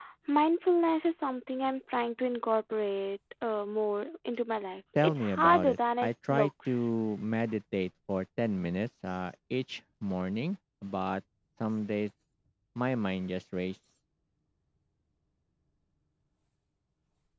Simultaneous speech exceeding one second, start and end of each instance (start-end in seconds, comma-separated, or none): 5.0-6.9